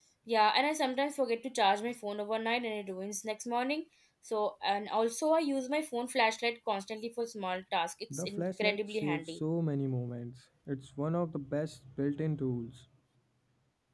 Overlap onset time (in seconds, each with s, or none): 8.1 s